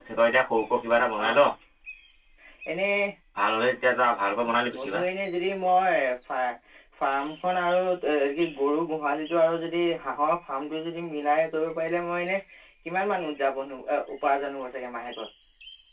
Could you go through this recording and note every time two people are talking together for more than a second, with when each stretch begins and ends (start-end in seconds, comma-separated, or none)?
none